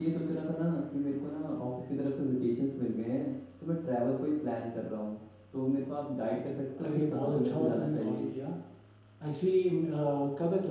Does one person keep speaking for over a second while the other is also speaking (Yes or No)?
Yes